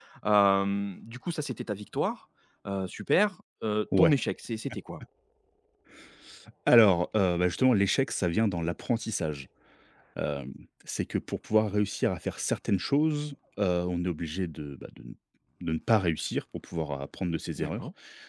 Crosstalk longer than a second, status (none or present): none